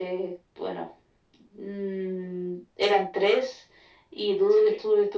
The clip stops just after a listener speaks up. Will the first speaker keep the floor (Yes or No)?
Yes